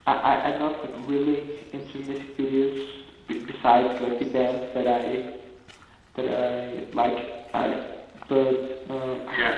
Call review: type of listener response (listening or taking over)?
taking over